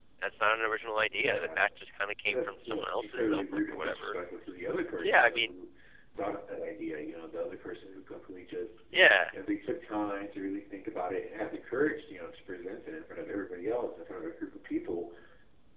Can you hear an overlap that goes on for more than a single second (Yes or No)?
Yes